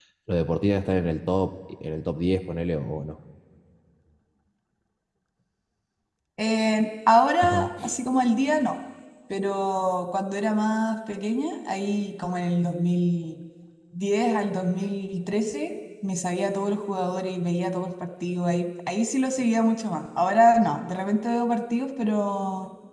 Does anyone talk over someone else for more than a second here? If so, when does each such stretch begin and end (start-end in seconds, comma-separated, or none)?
none